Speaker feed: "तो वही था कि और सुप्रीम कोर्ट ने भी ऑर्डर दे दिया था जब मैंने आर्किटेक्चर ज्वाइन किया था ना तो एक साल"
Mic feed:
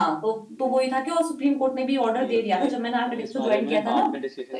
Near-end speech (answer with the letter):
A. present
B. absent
A